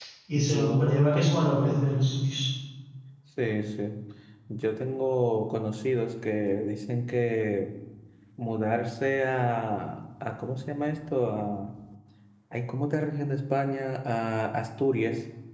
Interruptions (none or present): present